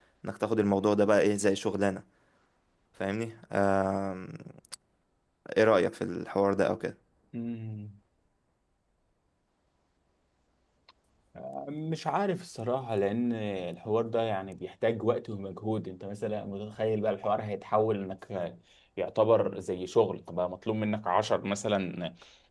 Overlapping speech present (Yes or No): No